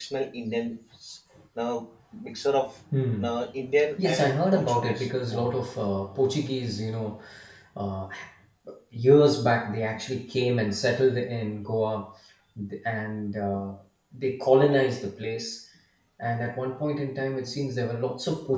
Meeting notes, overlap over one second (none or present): present